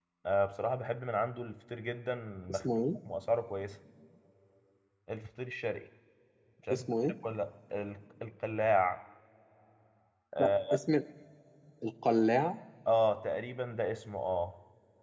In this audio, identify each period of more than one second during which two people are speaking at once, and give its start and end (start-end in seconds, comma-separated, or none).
none